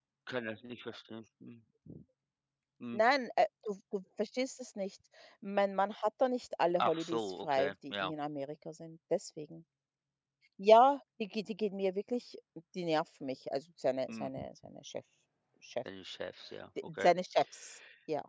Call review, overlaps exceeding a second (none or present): present